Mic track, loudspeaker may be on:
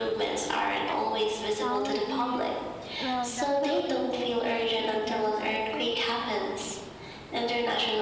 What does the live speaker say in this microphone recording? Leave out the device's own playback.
Yeah, I think technology will definitely make these regions safer

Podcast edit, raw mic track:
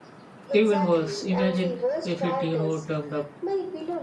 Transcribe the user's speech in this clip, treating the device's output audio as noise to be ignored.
Even worse, imagine if it, you know, turned up

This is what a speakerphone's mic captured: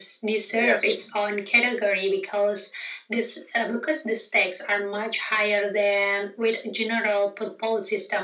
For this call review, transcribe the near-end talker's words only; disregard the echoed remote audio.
Yes.

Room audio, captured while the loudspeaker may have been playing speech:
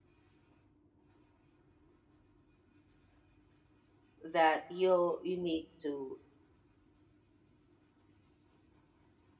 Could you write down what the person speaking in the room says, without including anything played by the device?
that you you need to,

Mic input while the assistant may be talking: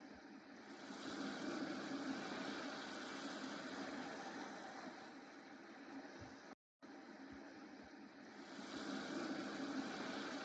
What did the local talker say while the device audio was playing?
none

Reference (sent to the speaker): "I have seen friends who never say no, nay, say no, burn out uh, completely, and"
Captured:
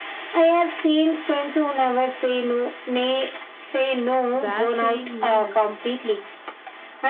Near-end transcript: where saying no

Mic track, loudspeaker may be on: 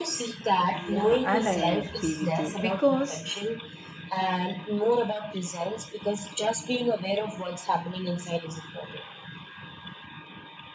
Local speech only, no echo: Yeah, and I agree with you because

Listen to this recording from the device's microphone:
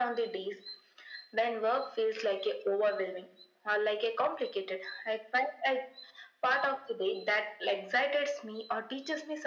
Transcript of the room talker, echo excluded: none

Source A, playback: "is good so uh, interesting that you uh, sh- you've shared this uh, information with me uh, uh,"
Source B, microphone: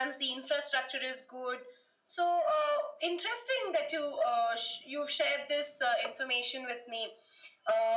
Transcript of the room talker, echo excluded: none

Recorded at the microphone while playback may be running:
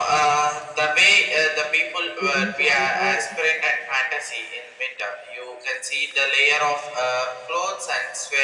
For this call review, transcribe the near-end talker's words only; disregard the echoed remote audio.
to enjoy the

